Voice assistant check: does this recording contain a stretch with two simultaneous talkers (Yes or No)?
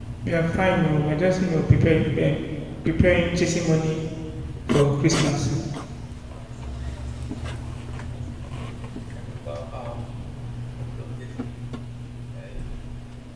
No